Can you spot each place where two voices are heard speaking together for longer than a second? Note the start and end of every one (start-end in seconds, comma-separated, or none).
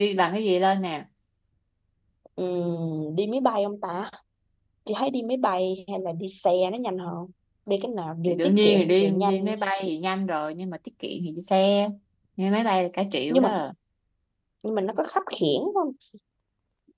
8.3-9.5